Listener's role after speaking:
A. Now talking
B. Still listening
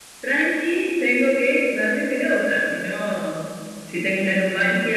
B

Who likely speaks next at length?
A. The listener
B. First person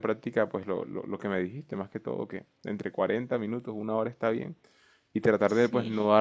B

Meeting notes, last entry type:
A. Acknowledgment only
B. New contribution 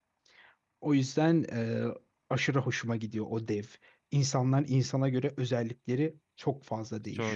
B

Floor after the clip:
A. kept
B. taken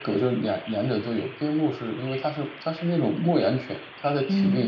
A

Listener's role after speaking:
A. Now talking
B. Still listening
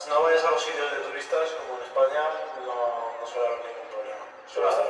A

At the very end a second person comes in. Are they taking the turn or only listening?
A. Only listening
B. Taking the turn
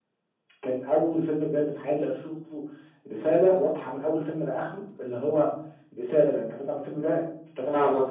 B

